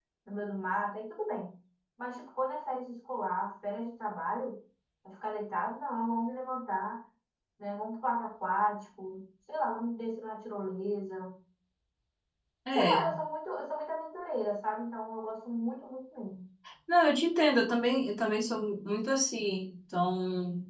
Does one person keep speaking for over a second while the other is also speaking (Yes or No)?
No